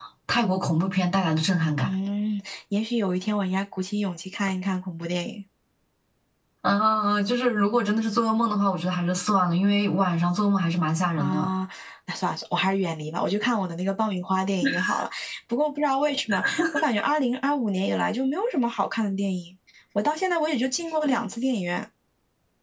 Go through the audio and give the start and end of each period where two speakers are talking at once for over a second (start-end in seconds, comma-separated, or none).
none